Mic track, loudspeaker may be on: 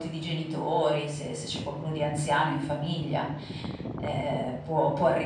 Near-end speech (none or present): none